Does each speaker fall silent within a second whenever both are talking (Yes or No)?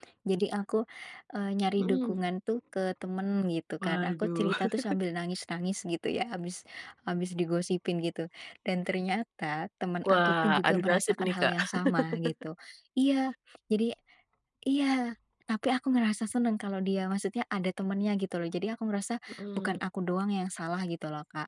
No